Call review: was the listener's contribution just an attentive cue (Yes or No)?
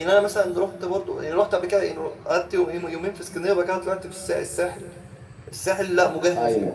Yes